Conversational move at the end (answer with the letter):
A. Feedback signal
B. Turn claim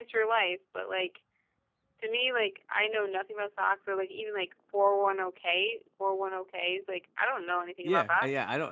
B